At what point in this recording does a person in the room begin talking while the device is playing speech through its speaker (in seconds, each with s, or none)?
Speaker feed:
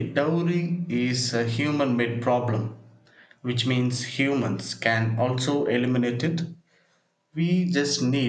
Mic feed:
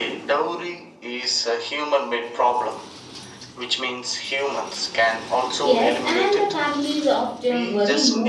5.6 s